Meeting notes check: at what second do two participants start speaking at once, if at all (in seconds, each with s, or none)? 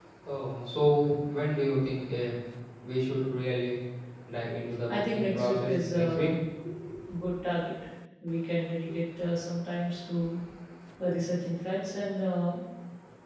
4.9 s